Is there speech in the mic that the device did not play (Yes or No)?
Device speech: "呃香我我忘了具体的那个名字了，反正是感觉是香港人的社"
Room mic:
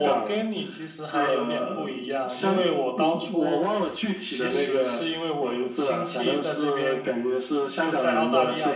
Yes